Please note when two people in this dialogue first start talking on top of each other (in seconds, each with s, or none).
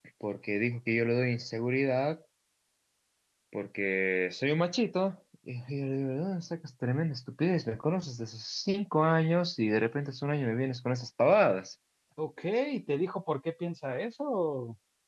none